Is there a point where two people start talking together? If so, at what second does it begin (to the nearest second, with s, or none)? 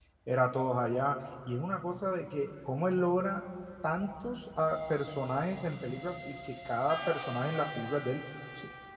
none